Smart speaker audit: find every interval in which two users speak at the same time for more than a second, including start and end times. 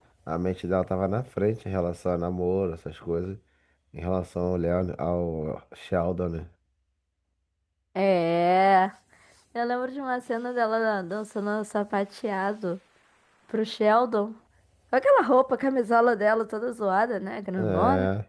none

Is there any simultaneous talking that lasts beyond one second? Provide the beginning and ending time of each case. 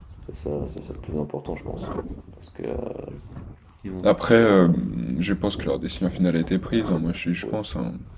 none

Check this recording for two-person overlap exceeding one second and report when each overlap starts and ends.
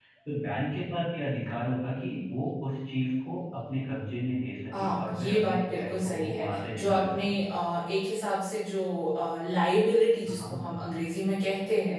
4.7-7.4

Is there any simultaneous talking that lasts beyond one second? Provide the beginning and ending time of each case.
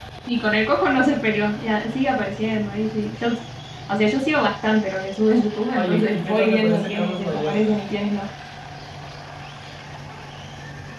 5.8-7.8

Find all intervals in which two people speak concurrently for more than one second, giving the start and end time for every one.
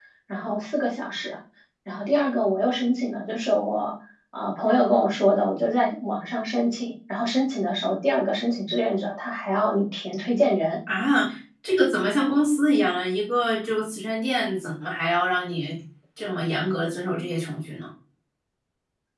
none

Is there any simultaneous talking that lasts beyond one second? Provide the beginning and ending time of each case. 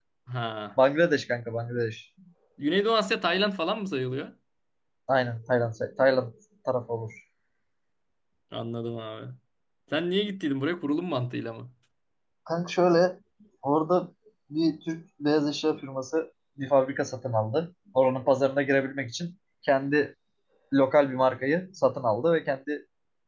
none

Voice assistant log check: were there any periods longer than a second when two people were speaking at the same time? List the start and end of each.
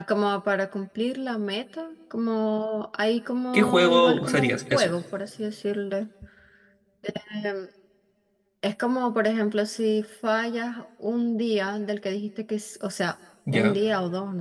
3.5-4.9

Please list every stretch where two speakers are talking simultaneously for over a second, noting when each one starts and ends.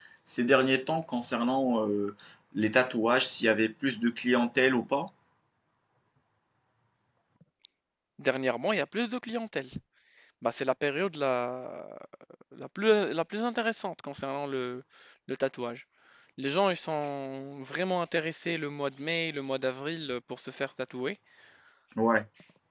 none

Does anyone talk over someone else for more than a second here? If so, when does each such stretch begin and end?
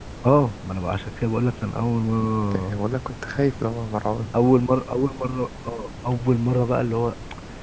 none

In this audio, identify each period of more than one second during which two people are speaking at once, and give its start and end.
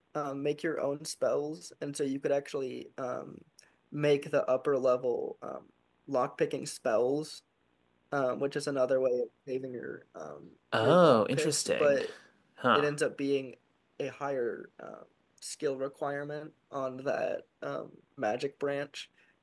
10.8-12.0

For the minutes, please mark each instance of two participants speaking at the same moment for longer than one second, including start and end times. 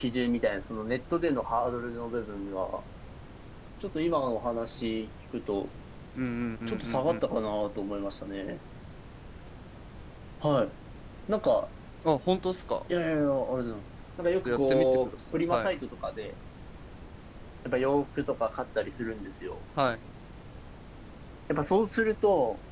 14.4-15.8

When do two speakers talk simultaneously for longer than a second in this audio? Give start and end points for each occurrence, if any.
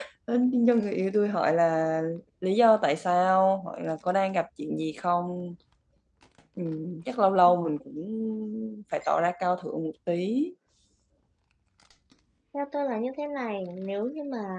none

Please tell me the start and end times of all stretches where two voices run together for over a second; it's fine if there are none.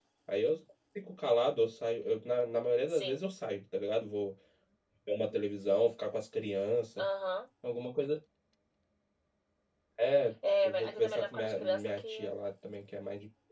10.6-12.3

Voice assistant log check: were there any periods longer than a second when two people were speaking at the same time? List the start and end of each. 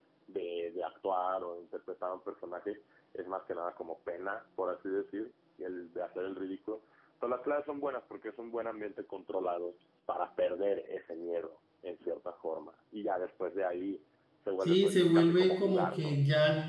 14.6-16.2

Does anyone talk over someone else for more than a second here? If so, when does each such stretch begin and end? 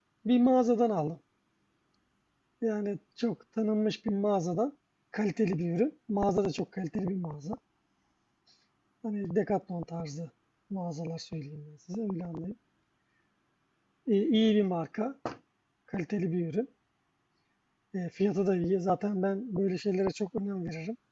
none

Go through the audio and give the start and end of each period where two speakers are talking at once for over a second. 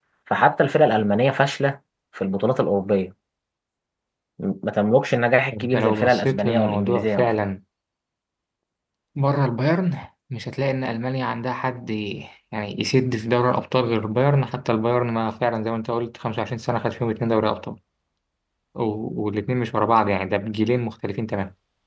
5.6-7.3

